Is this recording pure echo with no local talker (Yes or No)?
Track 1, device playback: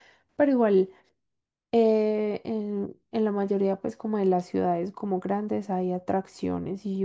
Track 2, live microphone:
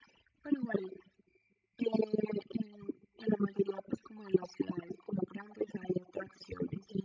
Yes